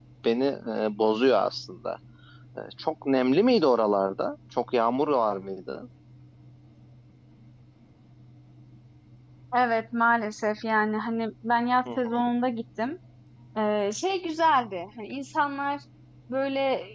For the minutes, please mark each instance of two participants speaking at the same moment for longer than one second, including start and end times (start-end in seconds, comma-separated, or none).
none